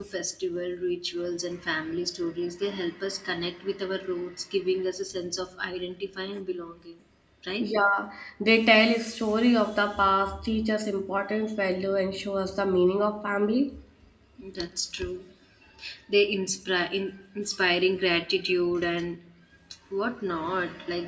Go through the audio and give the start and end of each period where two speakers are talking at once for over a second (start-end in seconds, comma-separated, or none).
none